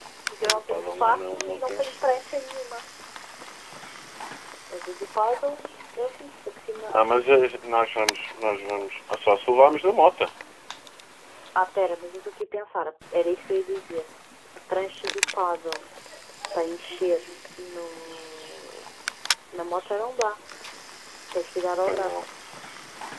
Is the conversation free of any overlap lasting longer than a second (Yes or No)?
No